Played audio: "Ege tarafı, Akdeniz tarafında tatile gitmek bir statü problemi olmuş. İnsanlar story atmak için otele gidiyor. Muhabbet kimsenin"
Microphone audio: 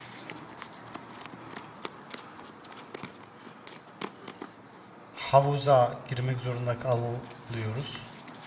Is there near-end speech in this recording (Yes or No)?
Yes